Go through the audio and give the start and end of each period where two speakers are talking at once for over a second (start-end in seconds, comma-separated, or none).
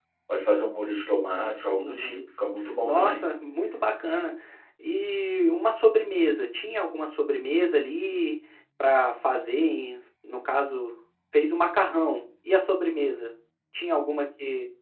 none